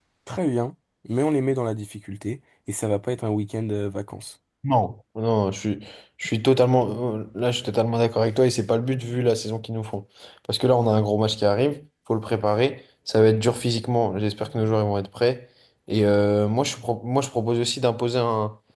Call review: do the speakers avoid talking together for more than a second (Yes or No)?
Yes